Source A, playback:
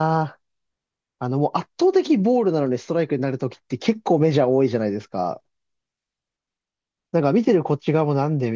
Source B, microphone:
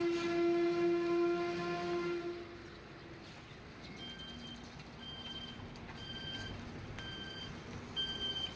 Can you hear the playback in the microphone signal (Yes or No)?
No